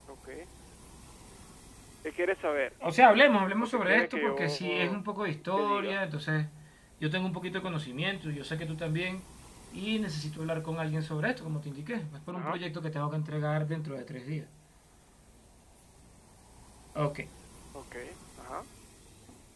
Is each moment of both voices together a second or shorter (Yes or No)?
No